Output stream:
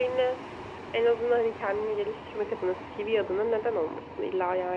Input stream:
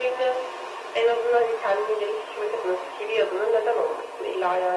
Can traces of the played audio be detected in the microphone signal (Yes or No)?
Yes